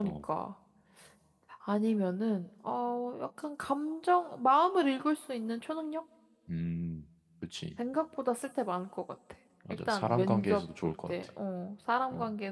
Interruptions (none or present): present